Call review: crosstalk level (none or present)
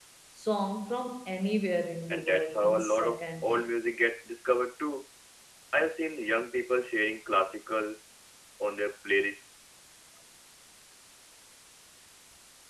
present